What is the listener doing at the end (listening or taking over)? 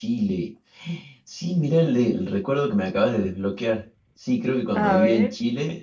listening